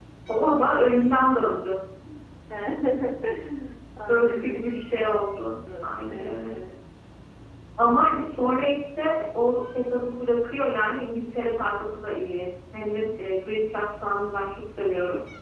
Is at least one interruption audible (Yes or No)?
Yes